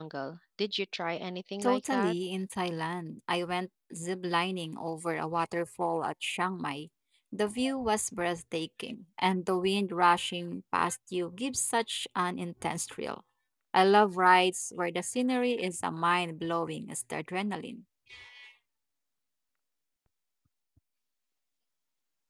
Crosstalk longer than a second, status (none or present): none